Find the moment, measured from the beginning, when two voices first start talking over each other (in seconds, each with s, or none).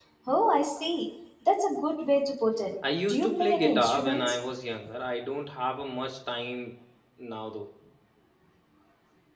3.1 s